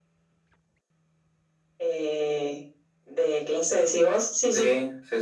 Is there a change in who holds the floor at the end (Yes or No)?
Yes